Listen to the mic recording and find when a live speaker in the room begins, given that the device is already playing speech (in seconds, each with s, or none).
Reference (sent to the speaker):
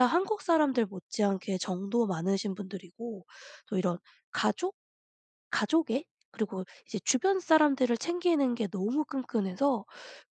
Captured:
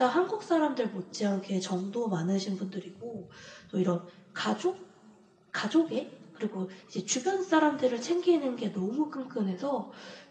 none